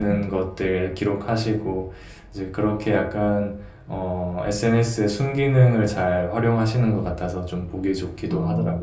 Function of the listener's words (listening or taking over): taking over